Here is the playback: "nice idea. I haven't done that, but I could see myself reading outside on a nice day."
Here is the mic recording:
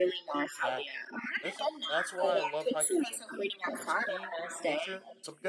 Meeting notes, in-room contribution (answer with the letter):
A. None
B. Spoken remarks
B